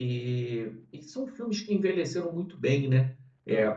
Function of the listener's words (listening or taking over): listening